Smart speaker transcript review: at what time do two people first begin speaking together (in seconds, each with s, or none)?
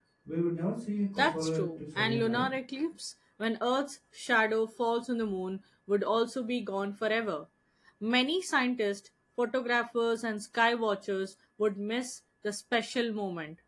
1.2 s